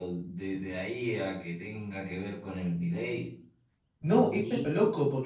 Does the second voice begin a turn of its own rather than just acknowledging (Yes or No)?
Yes